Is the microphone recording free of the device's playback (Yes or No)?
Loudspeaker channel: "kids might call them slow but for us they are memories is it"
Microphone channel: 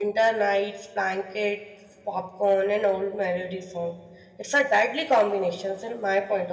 Yes